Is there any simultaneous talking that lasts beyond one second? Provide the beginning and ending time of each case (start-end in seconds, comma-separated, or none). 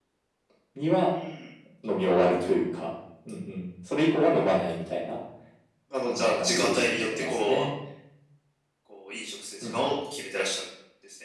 6.0-7.7